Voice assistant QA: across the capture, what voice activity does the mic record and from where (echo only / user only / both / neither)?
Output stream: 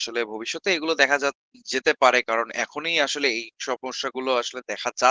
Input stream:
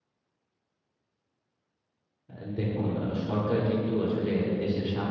user only